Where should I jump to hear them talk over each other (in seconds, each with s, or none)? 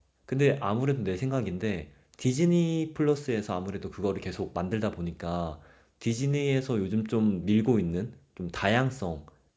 none